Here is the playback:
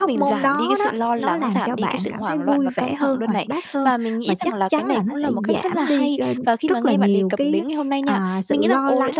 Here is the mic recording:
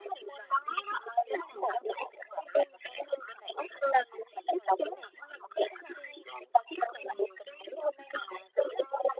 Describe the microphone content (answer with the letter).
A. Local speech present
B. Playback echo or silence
B